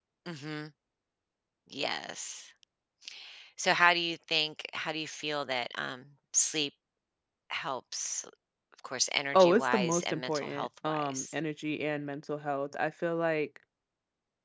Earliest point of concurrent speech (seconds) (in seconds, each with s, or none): 9.3 s